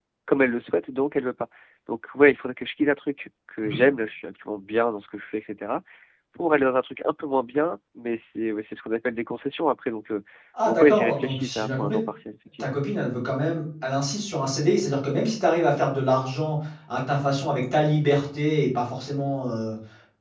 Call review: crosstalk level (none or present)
present